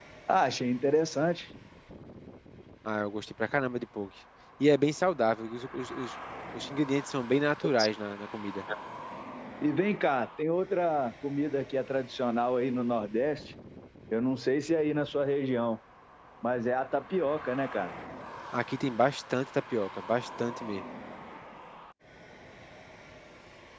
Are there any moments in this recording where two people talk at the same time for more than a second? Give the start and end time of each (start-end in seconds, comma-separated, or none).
none